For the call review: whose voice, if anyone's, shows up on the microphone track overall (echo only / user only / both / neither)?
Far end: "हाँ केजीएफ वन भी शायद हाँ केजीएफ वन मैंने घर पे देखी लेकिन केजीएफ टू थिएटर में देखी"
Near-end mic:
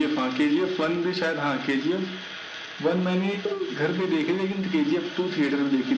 echo only